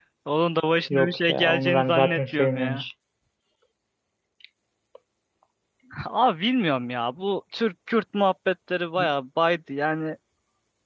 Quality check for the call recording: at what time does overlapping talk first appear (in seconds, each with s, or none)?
0.9 s